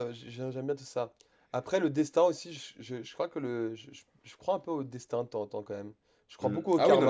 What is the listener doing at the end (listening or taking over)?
taking over